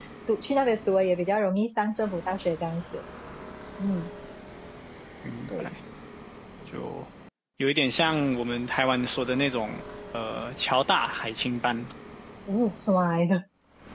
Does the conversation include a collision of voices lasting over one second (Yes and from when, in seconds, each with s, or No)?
No